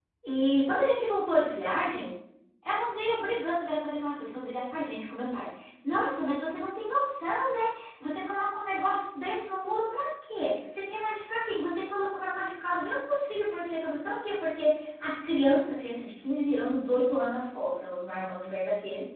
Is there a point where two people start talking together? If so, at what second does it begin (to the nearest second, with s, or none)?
none